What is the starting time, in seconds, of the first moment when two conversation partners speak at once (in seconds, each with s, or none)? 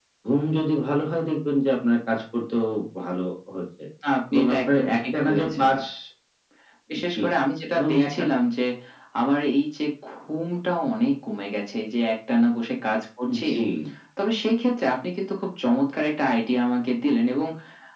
4.3 s